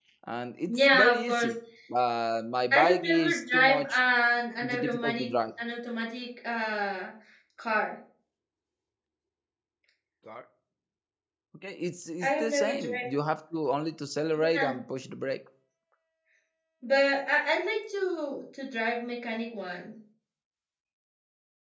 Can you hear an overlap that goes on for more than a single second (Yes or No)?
Yes